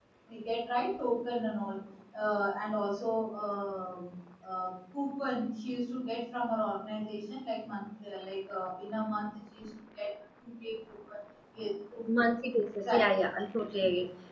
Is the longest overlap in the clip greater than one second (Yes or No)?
No